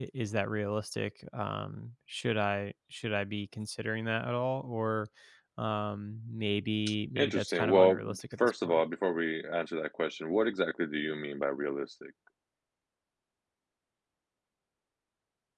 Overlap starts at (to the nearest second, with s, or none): 7 s